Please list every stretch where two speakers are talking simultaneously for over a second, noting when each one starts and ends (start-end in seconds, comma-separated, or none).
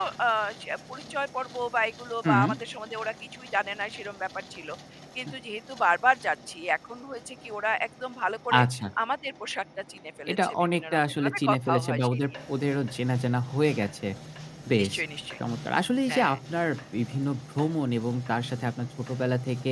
10.3-12.2